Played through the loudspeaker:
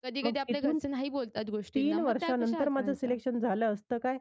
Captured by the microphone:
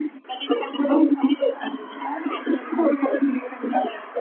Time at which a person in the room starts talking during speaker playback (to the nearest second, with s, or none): none